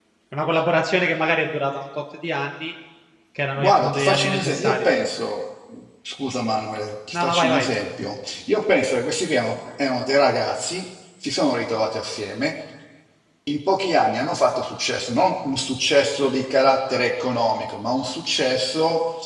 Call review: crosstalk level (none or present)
present